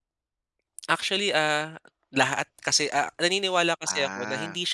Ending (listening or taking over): listening